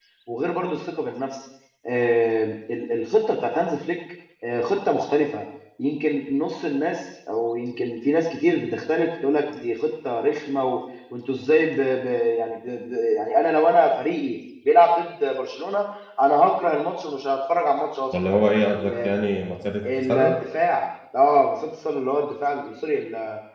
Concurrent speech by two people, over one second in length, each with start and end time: none

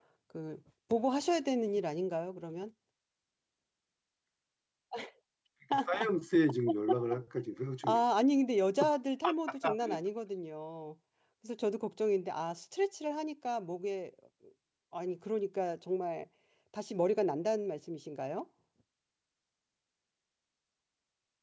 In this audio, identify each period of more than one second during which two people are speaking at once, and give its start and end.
none

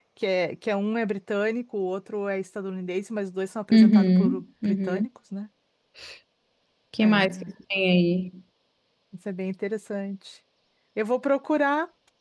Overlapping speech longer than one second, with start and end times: 3.7-5.0

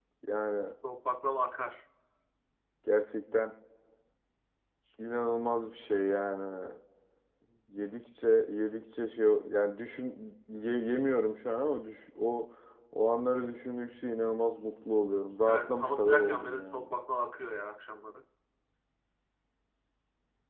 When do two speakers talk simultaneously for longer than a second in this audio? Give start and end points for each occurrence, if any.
15.5-16.9

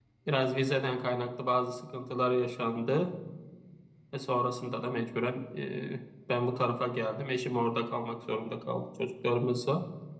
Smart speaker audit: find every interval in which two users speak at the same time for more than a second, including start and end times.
none

